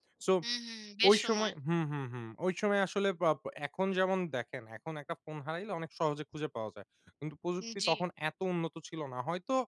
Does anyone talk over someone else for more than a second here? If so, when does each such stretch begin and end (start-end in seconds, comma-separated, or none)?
none